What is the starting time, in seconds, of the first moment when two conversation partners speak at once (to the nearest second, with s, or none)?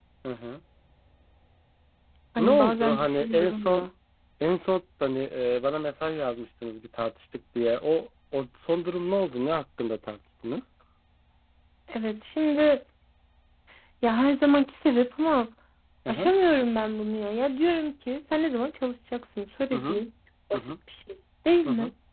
2 s